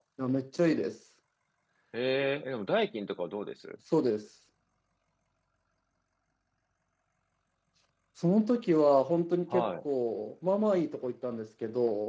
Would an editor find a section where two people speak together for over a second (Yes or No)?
No